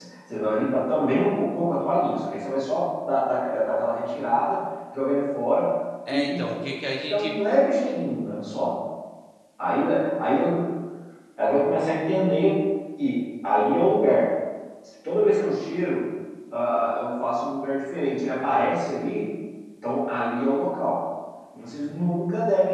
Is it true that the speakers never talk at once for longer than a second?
Yes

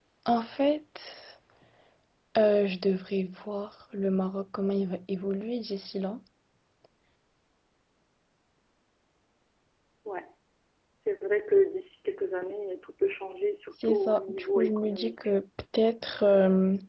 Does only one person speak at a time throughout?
No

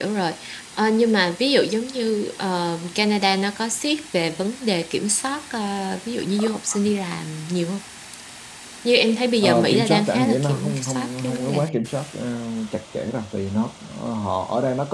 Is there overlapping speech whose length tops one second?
Yes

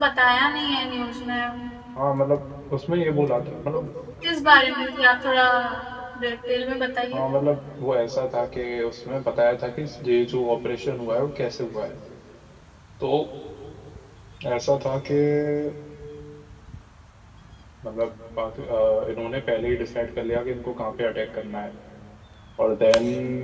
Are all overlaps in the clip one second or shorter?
Yes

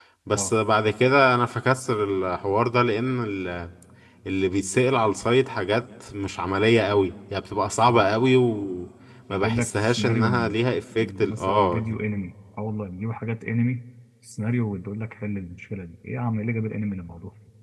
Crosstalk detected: Yes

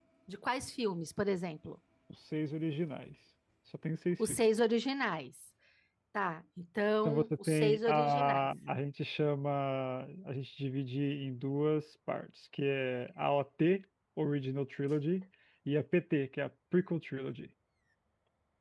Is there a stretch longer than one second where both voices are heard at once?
Yes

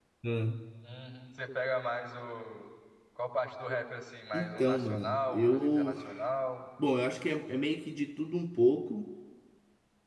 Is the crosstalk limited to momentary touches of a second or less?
No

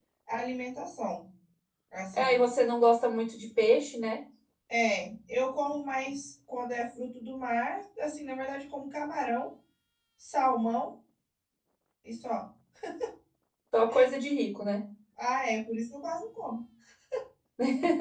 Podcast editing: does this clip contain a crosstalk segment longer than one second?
No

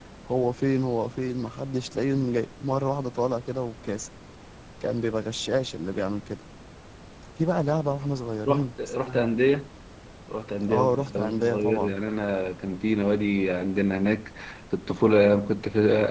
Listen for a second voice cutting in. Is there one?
Yes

